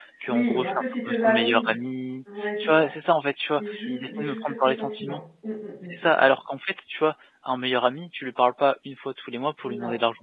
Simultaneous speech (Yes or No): Yes